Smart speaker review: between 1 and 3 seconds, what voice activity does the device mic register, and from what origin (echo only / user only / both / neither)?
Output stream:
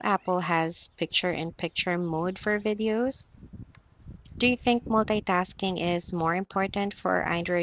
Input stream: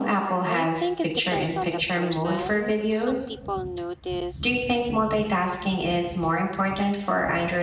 both